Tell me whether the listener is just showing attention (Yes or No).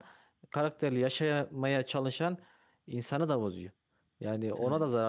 Yes